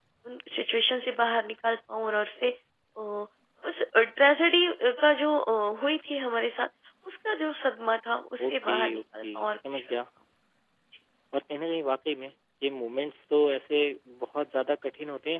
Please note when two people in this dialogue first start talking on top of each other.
8.4 s

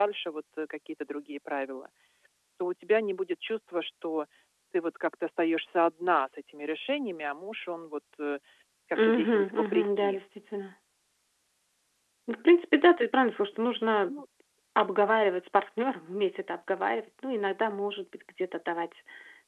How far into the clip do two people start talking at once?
8.9 s

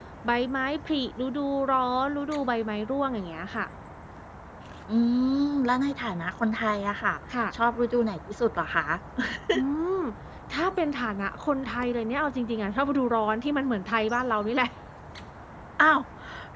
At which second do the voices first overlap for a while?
none

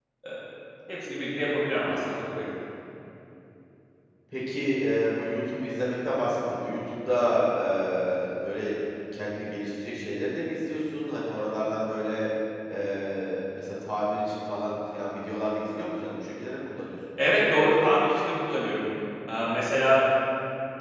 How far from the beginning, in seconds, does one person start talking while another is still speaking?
none

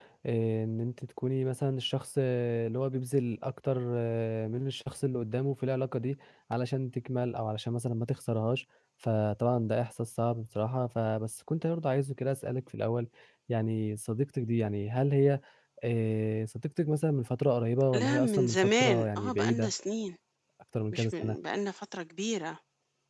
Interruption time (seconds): 17.9 s

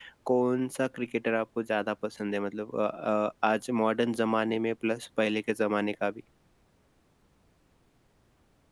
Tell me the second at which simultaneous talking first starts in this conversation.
none

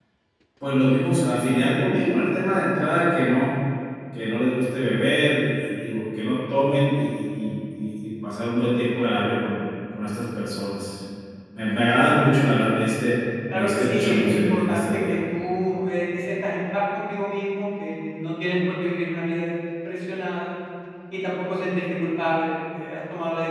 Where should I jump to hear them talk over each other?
13.5 s

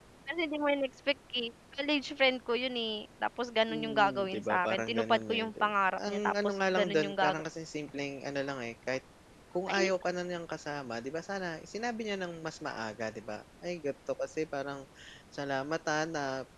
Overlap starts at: 3.7 s

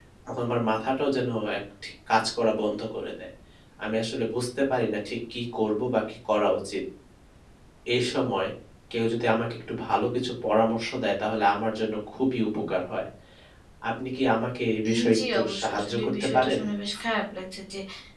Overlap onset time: 14.8 s

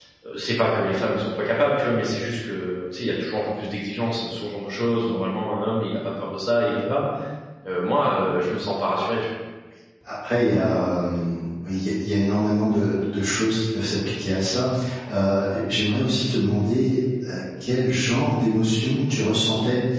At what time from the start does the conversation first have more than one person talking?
none

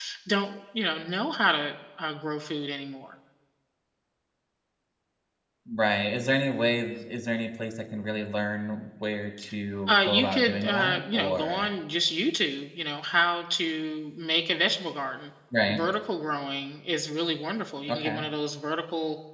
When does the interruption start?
9.9 s

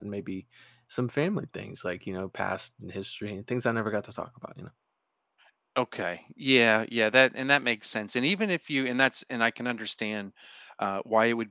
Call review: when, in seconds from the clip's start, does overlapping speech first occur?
none

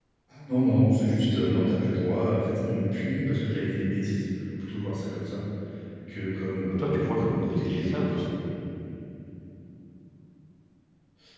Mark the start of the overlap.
6.8 s

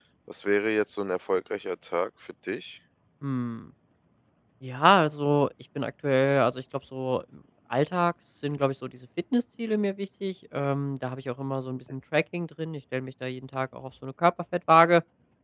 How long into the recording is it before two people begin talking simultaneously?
none

